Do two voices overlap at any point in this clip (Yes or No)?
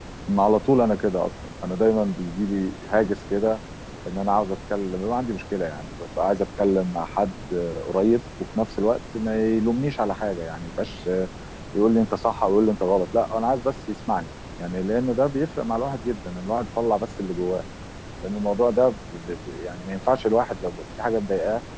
No